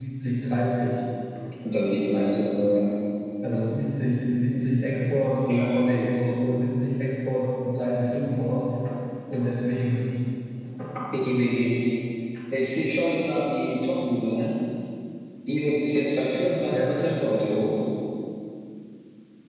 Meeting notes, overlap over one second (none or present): none